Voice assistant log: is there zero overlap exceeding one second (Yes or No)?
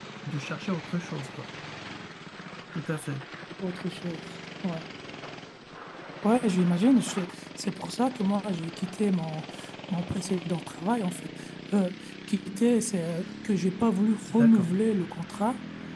Yes